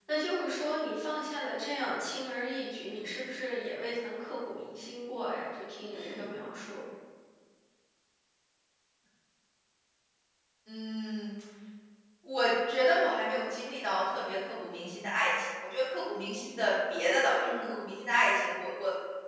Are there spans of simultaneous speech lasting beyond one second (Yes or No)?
No